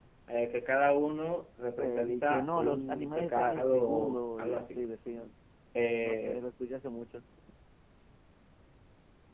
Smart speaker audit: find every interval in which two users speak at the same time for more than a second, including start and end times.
1.8-4.8

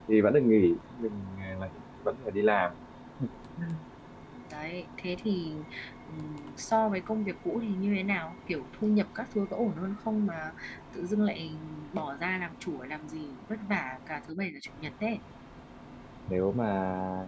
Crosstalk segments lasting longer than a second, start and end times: none

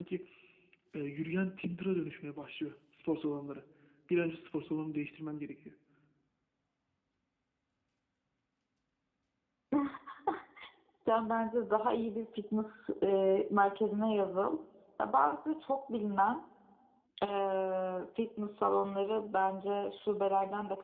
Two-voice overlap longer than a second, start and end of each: none

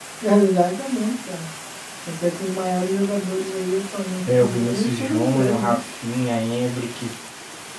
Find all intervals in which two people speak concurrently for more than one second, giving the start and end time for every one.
4.4-5.8

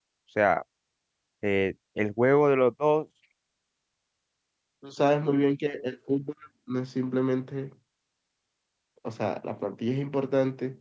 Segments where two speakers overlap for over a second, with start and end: none

